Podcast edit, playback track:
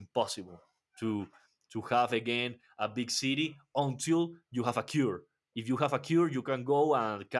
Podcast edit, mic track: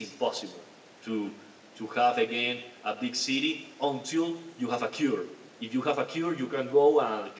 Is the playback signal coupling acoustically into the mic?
Yes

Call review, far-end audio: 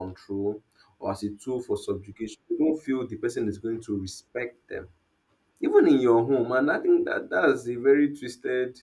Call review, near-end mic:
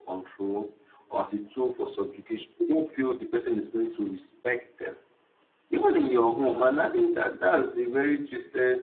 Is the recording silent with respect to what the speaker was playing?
No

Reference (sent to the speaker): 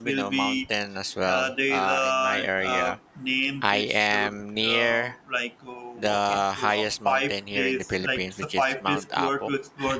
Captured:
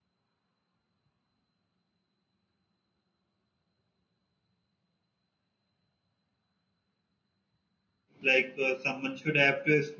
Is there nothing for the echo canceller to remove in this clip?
Yes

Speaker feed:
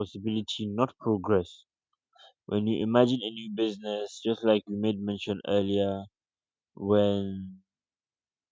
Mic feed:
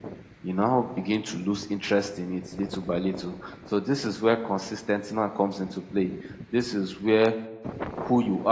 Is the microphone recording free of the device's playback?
Yes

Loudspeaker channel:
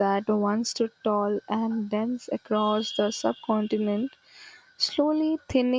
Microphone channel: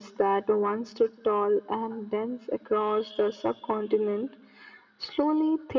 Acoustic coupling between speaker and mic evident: Yes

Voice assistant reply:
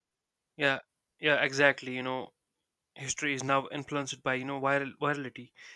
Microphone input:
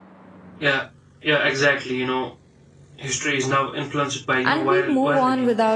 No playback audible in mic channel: No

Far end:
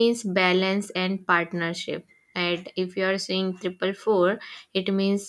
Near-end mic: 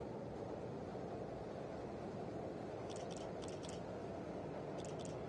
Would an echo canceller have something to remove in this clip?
No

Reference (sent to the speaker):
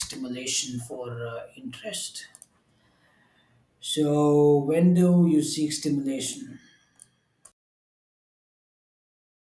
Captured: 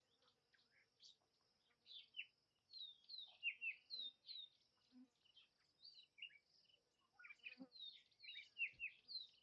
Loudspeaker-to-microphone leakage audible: No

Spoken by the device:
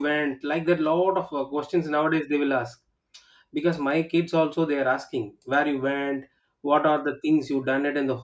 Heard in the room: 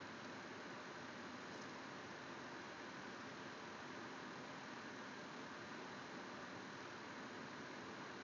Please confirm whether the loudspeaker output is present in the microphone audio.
No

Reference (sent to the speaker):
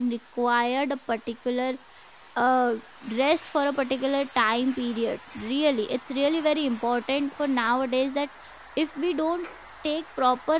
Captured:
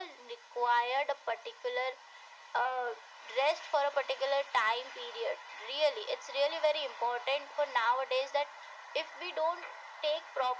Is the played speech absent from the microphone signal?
No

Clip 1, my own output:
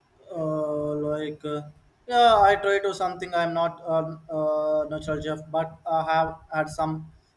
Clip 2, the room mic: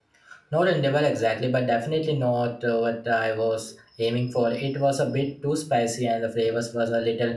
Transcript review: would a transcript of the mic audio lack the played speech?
Yes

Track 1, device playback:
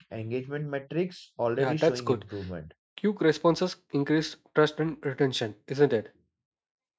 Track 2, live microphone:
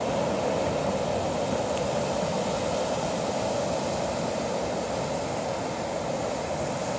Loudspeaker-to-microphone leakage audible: No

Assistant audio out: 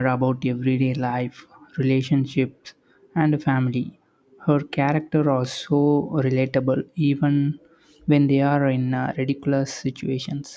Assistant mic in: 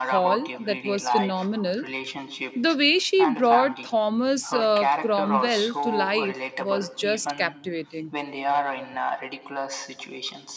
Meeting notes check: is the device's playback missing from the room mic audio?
No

